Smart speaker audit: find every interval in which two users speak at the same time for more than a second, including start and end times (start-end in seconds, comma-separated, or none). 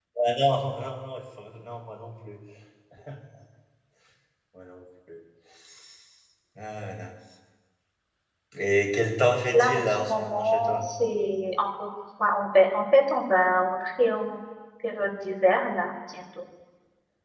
9.5-10.8